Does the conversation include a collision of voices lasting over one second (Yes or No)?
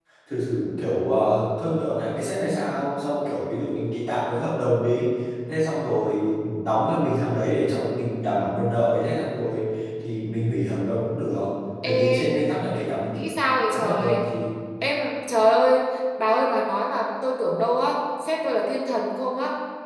No